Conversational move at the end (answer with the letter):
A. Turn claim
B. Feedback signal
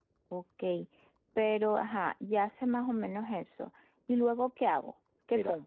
A